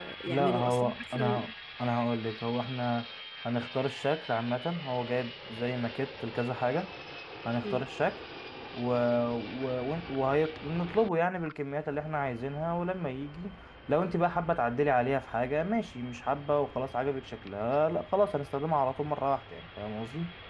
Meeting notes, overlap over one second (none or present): present